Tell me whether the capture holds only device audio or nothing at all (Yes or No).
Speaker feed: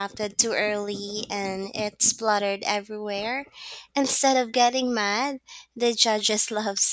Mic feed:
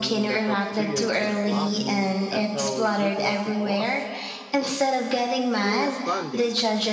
No